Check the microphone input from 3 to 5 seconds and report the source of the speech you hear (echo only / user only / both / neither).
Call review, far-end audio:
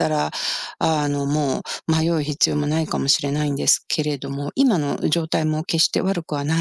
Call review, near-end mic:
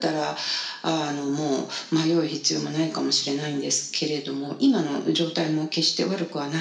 echo only